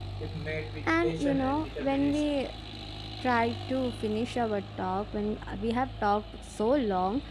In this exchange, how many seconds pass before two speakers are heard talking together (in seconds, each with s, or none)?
0.8 s